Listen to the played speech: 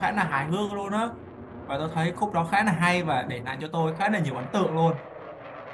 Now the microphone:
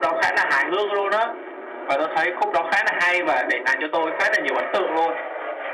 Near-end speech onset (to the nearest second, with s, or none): none